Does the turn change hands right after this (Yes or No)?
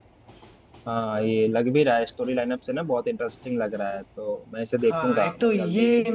Yes